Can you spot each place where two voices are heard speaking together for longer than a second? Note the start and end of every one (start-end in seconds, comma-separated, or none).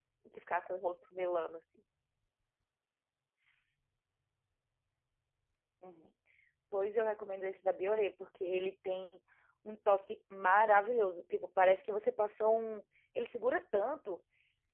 none